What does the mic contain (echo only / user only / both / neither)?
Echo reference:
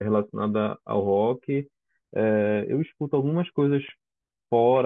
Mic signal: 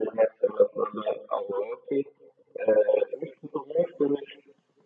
echo only